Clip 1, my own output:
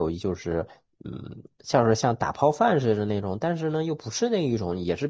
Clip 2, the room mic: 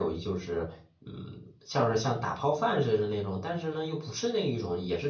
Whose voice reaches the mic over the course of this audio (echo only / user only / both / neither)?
echo only